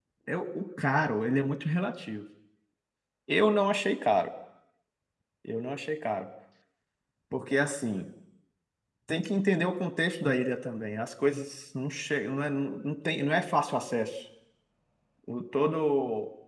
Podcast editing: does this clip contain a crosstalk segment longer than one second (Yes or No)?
No